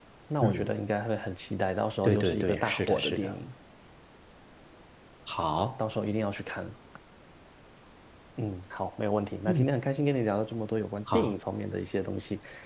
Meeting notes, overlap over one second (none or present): present